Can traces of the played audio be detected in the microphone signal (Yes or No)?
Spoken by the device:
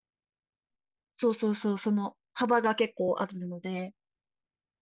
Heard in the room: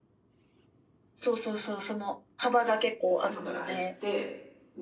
Yes